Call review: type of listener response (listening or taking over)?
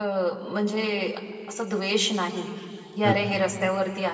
listening